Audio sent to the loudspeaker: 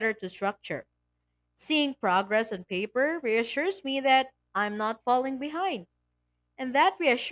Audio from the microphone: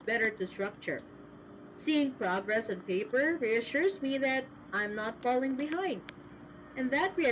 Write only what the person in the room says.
none

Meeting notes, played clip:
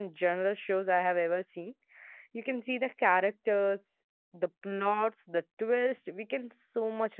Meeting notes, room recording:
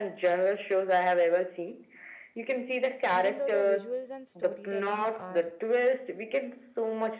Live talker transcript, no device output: even though the visuals and storytelling are

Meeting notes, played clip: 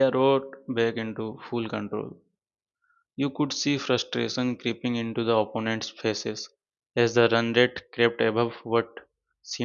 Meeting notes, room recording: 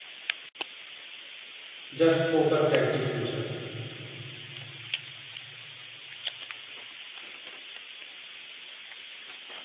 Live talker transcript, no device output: just focused execution.

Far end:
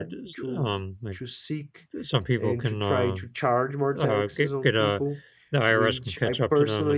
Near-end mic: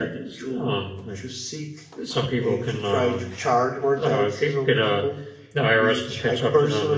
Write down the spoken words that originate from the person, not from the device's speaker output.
none

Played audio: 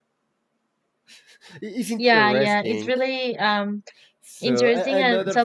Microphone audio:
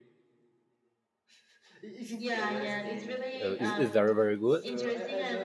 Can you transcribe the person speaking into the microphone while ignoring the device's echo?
uh, is, is very very good,

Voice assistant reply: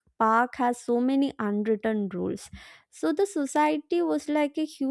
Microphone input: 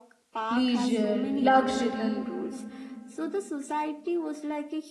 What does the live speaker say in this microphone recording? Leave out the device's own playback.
leisure, luxury,

